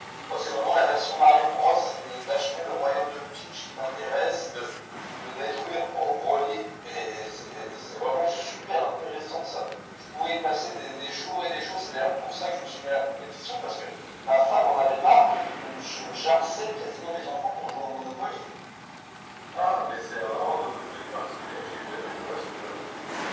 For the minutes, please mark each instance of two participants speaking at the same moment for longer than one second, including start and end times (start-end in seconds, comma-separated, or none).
none